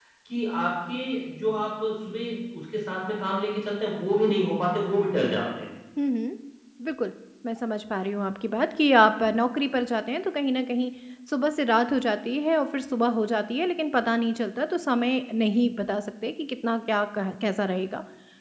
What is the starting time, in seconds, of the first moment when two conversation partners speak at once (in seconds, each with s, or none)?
none